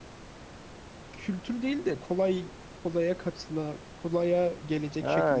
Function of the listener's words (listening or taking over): taking over